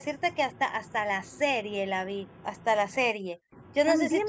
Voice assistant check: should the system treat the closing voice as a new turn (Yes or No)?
Yes